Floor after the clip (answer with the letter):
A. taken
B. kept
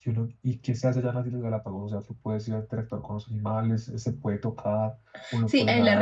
A